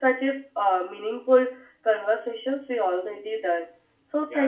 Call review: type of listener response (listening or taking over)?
taking over